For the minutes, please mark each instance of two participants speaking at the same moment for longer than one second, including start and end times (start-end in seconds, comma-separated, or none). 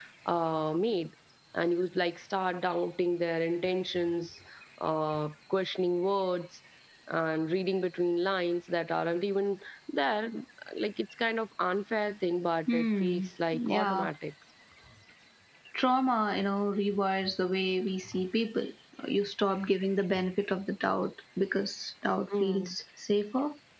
12.7-14.1